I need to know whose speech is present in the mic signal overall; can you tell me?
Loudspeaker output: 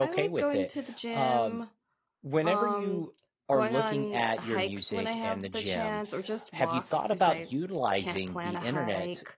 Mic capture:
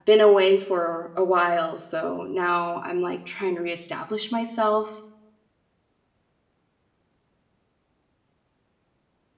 user only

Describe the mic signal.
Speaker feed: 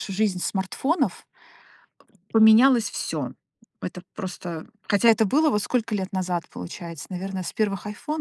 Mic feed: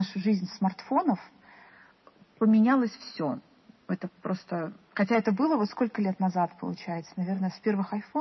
echo only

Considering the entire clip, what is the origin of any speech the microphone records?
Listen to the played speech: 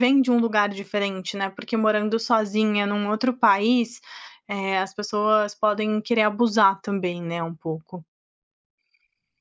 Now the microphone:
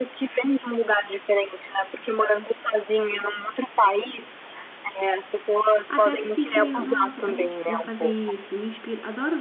both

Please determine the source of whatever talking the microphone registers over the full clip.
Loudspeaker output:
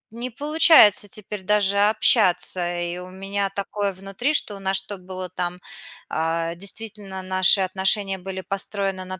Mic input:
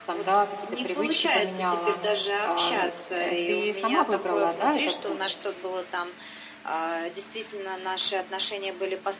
both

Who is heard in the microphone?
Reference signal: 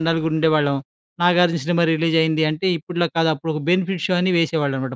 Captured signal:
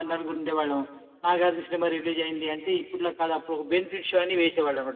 echo only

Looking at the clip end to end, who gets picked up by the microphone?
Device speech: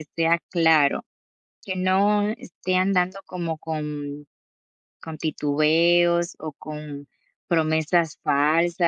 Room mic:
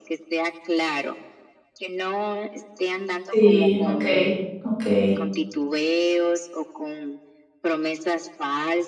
both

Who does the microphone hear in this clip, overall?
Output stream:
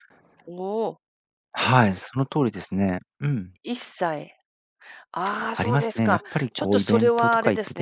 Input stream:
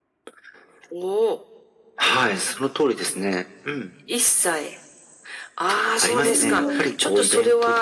both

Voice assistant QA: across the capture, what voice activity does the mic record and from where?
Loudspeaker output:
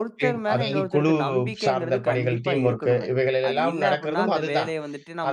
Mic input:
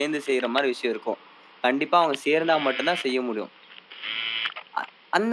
user only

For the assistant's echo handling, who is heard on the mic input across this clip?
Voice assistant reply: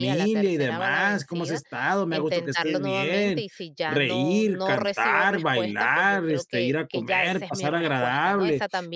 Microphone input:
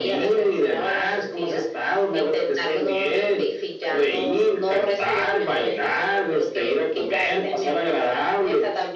echo only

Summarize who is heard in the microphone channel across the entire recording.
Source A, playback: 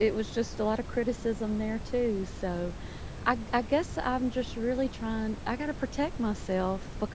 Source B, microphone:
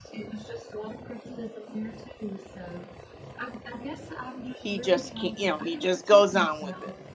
both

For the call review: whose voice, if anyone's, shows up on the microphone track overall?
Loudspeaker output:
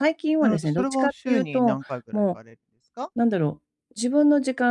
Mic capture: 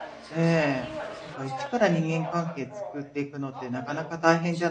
both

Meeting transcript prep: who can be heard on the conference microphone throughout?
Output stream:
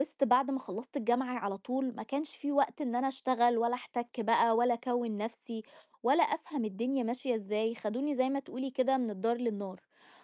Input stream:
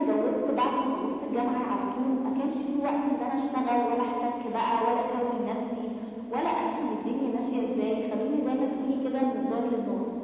echo only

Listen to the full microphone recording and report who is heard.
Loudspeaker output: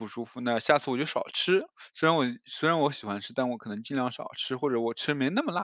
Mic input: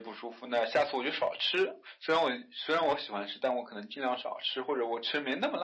echo only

